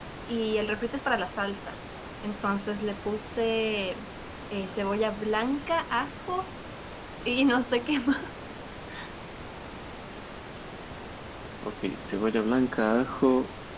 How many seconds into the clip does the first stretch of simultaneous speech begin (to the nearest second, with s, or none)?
none